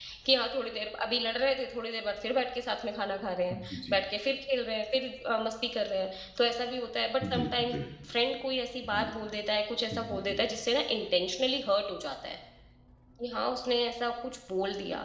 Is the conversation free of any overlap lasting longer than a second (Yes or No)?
Yes